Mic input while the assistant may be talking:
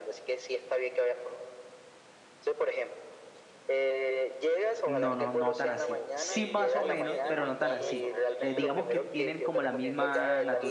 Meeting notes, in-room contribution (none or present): present